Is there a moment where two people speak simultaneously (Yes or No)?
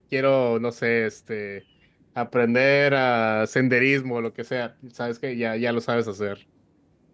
No